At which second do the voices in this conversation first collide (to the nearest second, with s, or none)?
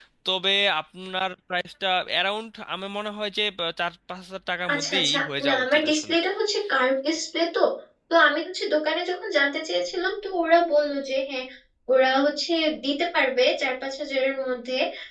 5 s